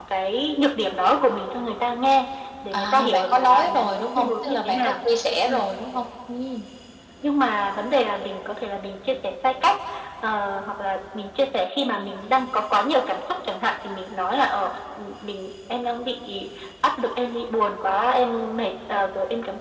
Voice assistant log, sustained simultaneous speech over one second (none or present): present